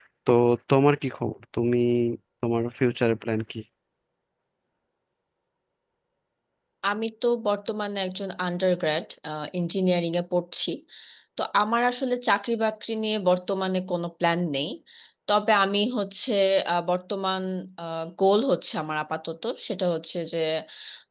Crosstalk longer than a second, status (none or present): none